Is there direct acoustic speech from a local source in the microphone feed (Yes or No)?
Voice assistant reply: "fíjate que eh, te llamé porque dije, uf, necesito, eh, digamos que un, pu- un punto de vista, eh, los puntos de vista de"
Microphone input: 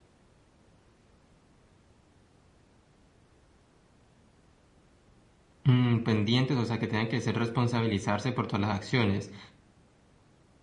Yes